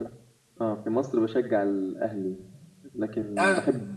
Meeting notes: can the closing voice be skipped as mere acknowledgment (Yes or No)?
Yes